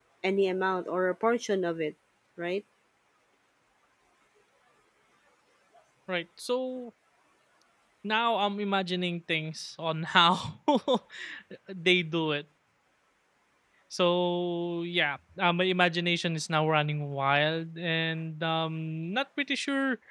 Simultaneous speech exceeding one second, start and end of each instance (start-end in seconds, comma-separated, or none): none